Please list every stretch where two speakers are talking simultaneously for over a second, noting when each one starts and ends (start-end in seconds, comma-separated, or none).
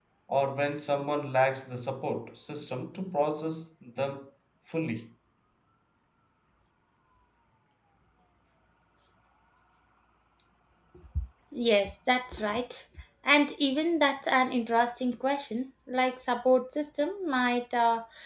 none